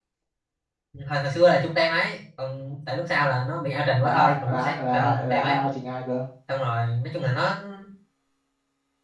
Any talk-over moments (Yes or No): Yes